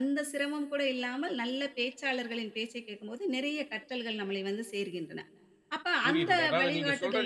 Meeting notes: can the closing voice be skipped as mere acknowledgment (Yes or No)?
No